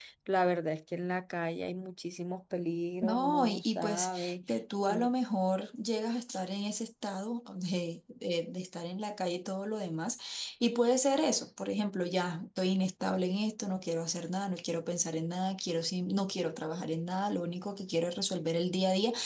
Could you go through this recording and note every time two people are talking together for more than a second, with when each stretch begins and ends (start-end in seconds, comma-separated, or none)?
3.0-4.3